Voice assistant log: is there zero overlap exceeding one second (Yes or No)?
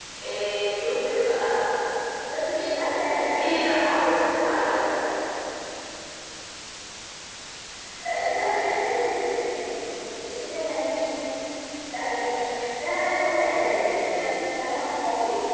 Yes